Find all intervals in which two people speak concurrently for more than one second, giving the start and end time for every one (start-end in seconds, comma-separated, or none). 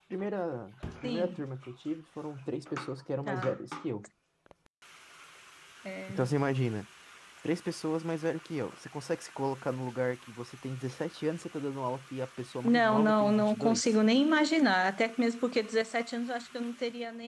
12.6-14.0